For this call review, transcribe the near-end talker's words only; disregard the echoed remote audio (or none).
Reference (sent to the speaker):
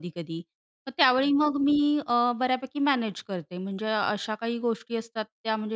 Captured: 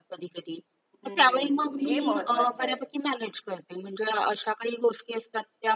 हं, हे महत्वाचं आहे.